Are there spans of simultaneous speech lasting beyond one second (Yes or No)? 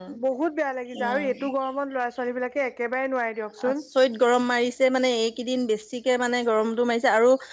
No